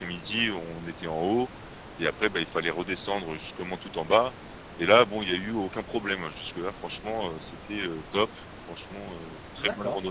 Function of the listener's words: taking over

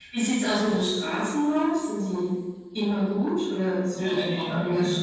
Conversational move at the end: taking over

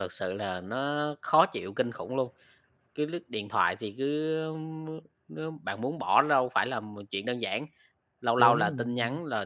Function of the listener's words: listening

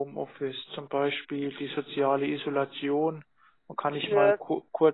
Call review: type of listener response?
listening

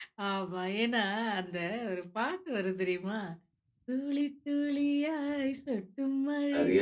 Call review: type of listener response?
listening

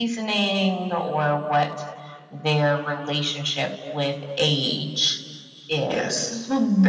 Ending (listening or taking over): taking over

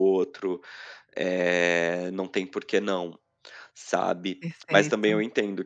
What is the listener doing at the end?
listening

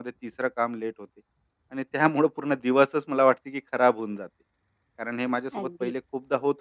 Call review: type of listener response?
listening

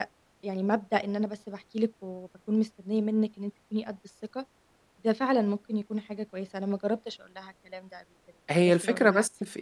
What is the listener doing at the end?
taking over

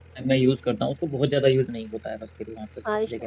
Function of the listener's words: taking over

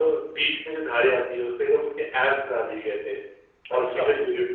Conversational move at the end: listening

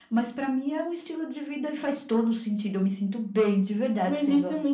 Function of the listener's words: taking over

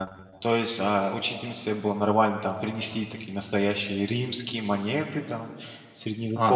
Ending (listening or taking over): taking over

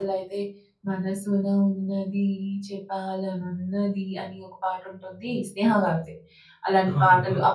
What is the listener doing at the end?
listening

